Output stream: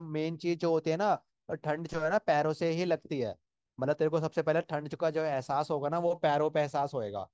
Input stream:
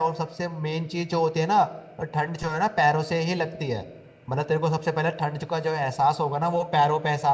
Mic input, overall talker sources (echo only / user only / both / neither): echo only